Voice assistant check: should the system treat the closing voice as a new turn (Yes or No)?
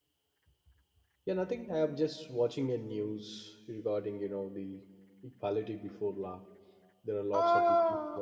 Yes